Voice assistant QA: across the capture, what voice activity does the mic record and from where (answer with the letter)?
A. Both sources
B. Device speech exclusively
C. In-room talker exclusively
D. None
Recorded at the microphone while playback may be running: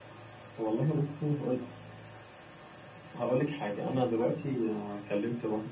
B